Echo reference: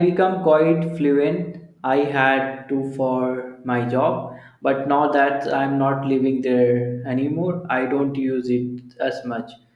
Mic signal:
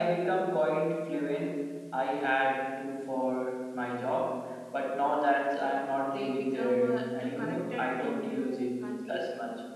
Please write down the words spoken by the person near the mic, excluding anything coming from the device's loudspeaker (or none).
they become uh, too connected to new country,